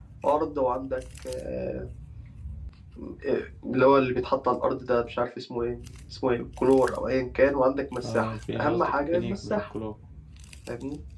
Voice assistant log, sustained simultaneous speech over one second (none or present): present